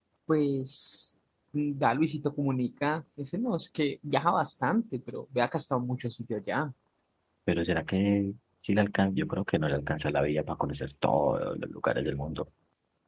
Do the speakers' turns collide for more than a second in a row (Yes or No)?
No